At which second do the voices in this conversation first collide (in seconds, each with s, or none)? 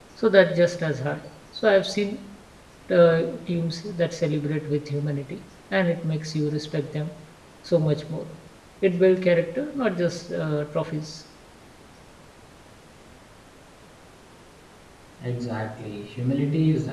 none